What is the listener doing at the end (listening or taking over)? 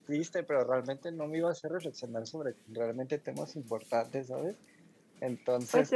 taking over